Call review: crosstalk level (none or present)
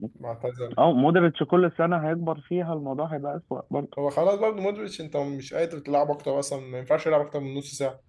none